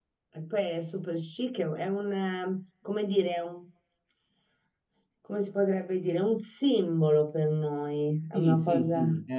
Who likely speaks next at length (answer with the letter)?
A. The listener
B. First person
A